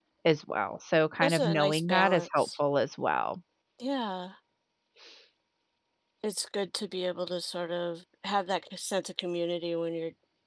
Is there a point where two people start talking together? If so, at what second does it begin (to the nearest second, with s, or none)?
1 s